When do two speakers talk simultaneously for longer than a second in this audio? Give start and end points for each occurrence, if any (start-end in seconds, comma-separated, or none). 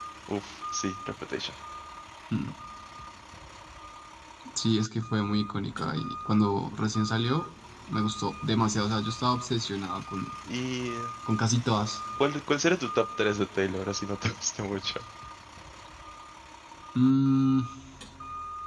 none